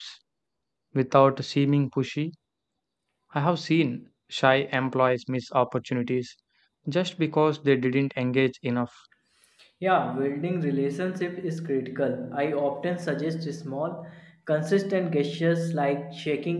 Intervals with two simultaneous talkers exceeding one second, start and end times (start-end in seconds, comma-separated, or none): none